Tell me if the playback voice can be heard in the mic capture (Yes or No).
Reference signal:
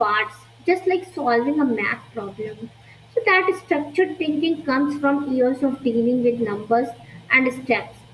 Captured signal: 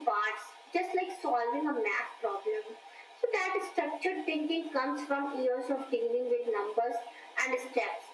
Yes